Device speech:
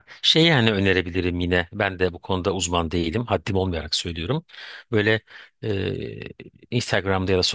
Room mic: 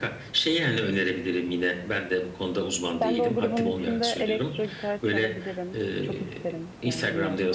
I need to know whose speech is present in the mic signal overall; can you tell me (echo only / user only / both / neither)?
both